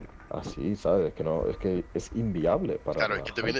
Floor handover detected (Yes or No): Yes